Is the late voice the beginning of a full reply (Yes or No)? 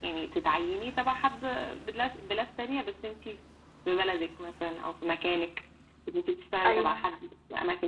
No